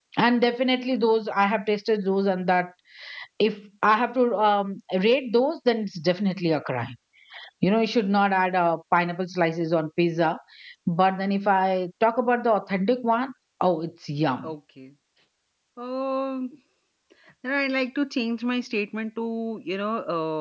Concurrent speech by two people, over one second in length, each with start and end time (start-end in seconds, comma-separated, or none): none